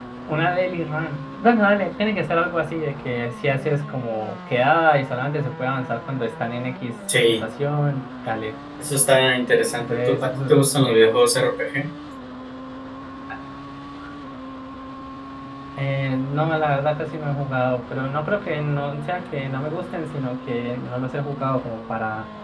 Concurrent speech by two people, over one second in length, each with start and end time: 9.8-11.2

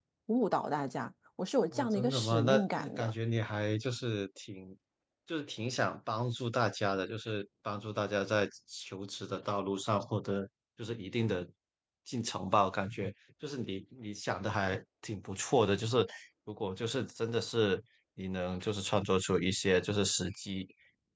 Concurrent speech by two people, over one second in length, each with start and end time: 1.7-3.1

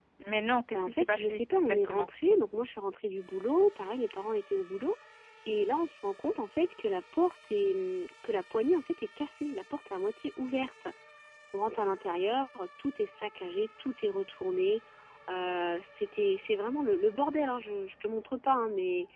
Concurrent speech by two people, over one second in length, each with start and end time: 0.7-2.1

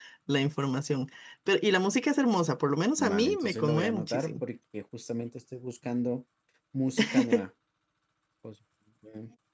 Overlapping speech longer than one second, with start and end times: 3.0-4.4

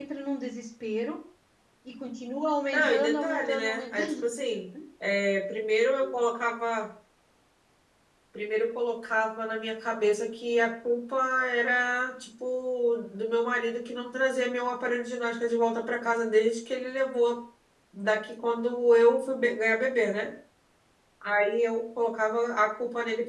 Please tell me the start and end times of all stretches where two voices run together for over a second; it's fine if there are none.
2.7-4.3

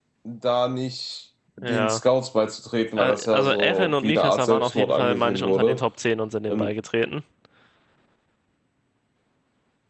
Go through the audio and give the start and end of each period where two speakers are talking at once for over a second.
3.0-5.8

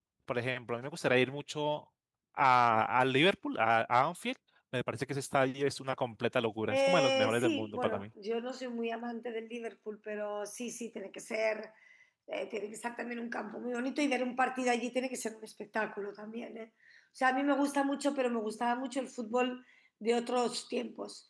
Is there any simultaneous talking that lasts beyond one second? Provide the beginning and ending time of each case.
6.7-8.0

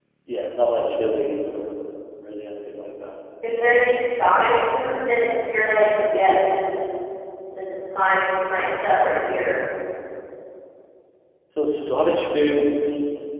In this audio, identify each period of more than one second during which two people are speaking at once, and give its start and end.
none

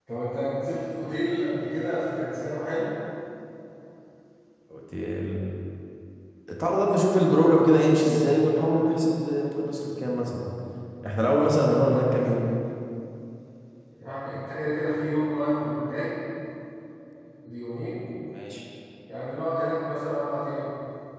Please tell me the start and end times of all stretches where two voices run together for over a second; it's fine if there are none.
none

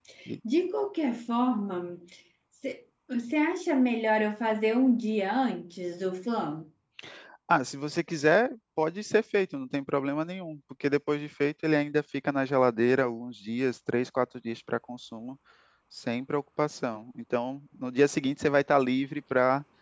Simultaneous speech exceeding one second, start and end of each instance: none

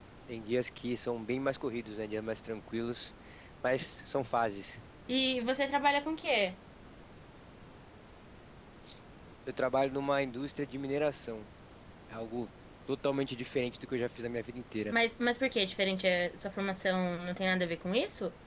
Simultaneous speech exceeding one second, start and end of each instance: none

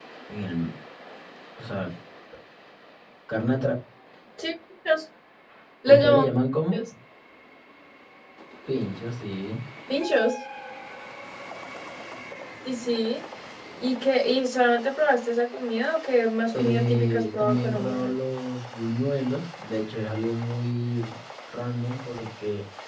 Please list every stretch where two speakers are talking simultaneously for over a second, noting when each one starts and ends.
16.5-18.1

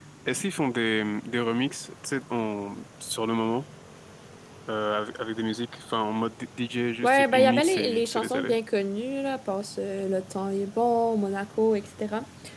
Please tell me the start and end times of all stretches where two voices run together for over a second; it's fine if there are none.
7.0-8.5

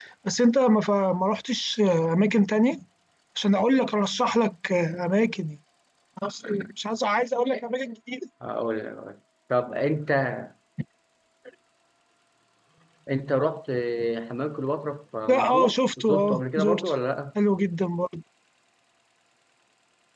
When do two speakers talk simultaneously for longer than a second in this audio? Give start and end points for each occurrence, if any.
15.3-16.9

